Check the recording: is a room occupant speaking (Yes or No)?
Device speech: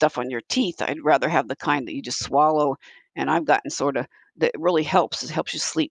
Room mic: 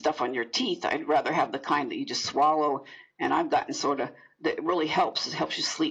No